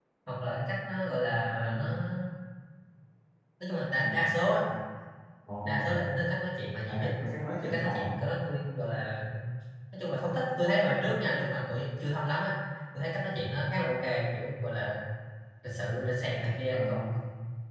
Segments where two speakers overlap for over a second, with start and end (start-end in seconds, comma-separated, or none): none